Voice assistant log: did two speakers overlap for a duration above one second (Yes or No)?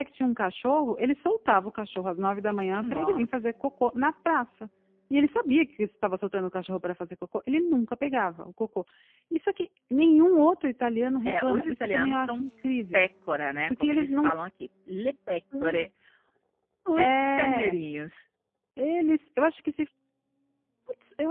Yes